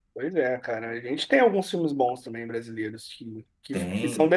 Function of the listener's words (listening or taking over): listening